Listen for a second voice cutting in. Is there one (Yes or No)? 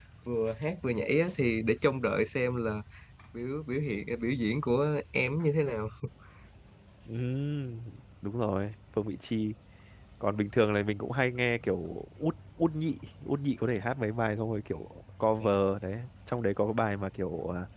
No